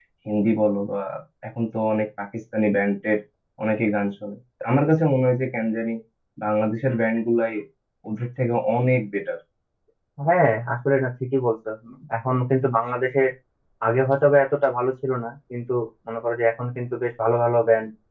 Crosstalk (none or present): none